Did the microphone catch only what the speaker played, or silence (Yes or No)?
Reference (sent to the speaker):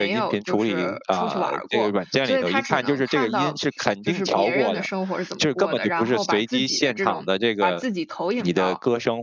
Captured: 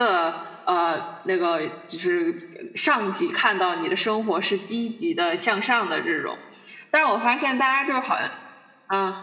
No